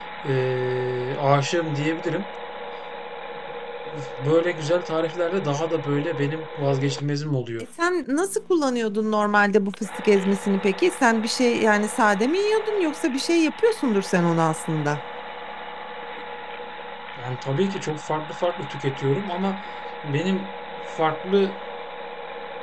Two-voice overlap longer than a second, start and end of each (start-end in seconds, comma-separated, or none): none